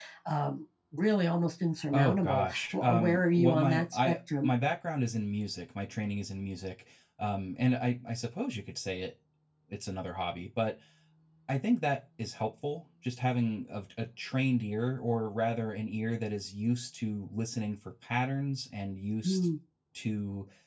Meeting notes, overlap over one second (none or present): present